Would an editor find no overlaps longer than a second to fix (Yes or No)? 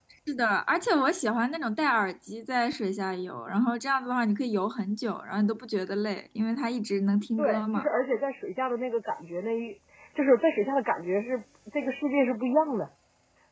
Yes